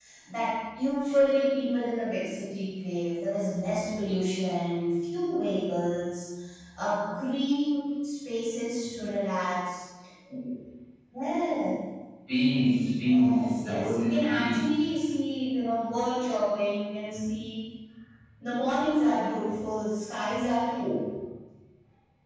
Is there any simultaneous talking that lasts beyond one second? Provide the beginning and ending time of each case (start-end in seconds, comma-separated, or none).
13.0-14.9